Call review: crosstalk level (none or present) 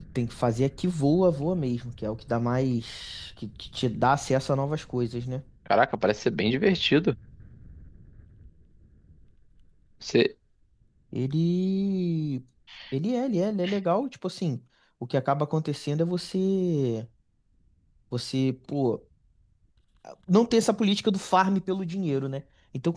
none